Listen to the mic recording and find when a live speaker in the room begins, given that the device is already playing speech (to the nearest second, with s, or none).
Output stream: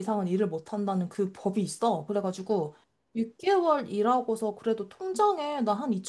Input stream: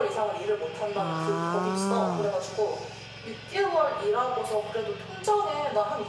1 s